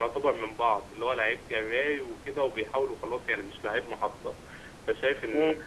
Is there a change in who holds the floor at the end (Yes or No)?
No